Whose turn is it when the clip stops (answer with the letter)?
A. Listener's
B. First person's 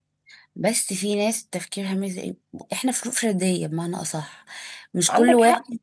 B